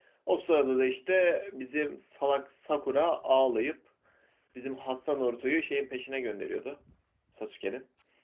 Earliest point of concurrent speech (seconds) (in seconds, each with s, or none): none